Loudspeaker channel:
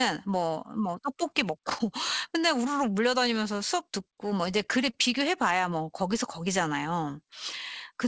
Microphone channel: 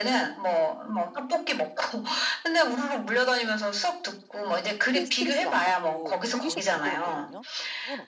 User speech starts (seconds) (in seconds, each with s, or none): 4.8 s